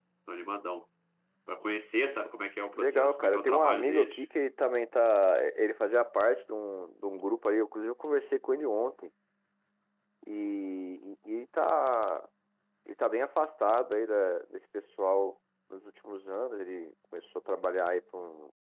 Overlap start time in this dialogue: 3 s

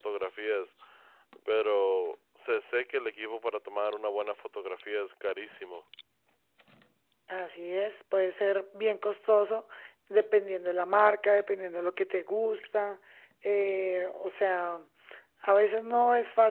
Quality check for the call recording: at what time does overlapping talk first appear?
none

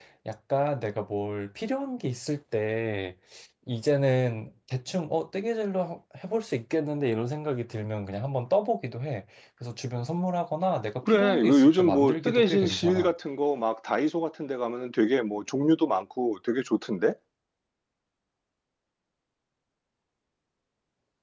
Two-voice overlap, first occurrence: 11 s

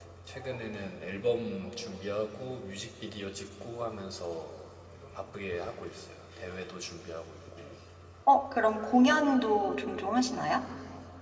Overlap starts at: none

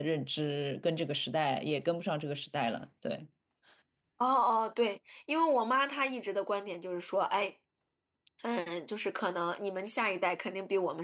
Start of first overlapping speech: none

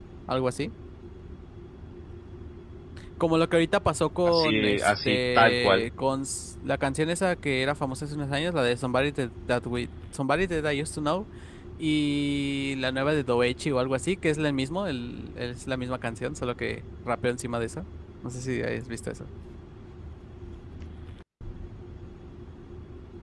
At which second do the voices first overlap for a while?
4 s

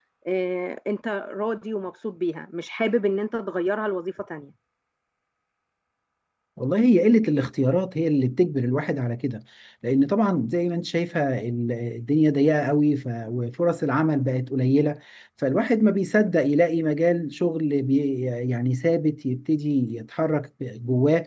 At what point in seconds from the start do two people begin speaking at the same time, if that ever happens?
none

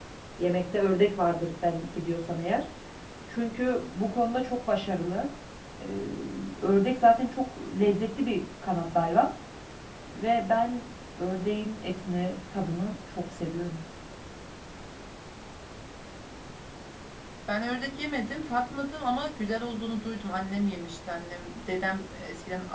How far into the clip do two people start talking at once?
none

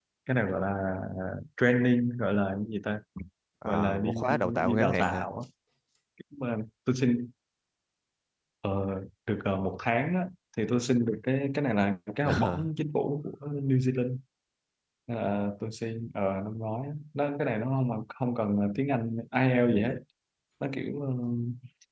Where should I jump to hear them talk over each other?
4 s

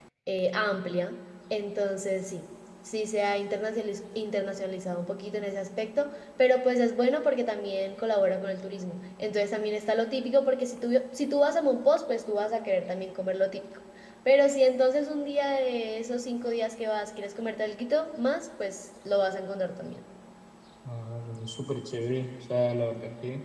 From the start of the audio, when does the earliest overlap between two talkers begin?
none

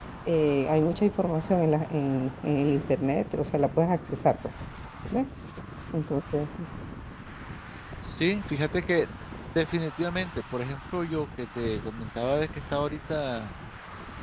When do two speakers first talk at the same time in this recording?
none

